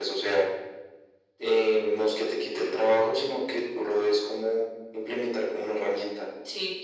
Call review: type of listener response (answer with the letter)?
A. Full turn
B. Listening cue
A